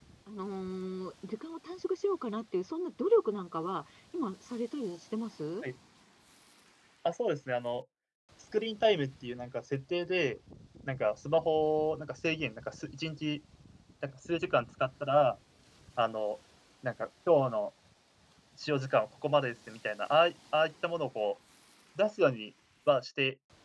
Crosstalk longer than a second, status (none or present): none